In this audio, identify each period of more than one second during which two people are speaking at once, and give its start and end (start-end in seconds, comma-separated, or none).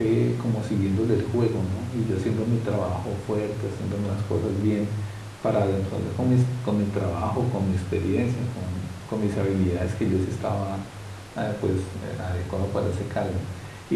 none